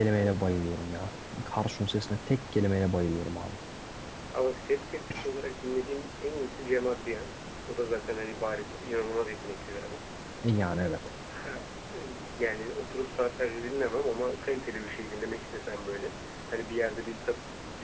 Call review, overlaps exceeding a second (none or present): none